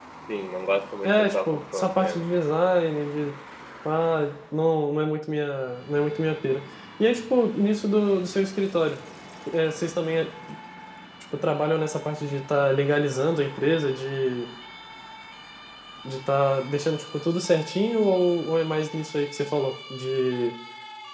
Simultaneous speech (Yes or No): Yes